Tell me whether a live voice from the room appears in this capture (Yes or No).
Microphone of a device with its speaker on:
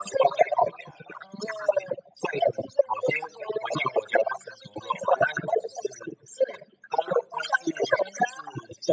No